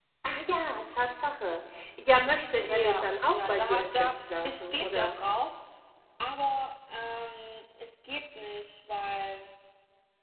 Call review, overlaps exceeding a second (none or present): present